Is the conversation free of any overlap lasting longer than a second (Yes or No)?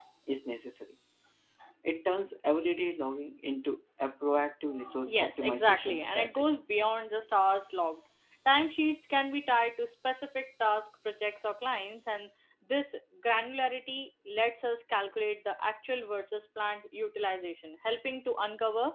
No